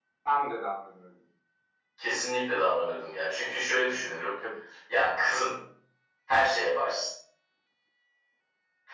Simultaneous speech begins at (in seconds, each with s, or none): none